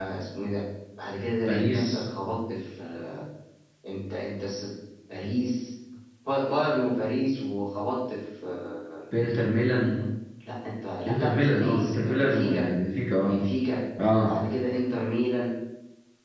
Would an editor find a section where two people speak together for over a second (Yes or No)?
Yes